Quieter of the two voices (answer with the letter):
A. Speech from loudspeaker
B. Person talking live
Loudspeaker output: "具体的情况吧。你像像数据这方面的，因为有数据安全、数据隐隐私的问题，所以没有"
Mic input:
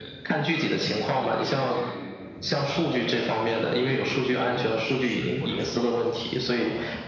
B